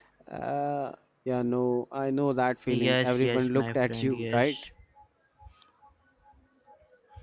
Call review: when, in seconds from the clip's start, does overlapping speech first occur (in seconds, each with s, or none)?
2.7 s